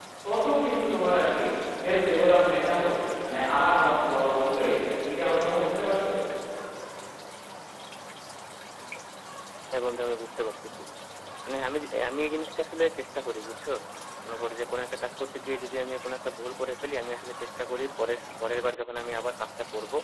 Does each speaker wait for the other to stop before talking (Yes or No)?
Yes